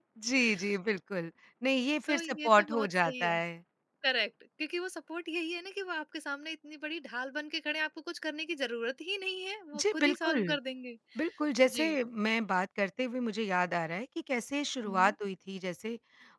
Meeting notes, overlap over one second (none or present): present